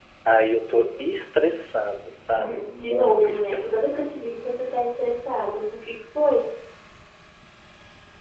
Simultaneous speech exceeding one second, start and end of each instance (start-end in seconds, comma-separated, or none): 2.3-4.0